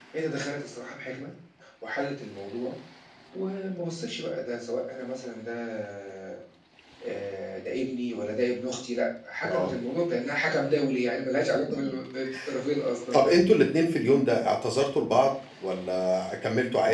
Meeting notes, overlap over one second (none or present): none